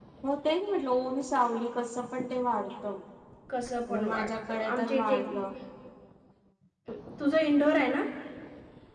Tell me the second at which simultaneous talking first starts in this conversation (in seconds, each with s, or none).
3.9 s